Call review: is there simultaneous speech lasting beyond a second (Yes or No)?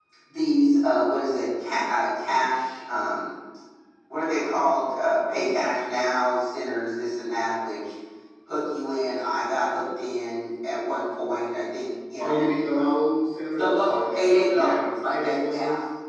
Yes